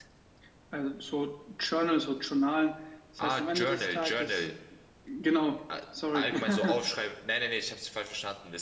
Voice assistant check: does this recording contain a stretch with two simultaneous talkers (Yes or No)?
Yes